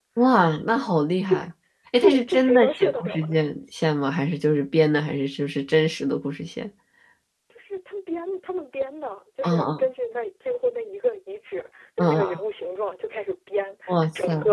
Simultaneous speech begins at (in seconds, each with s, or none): 2.0 s